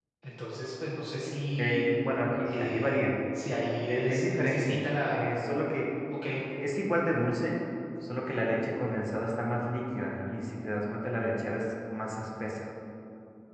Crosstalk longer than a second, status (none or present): present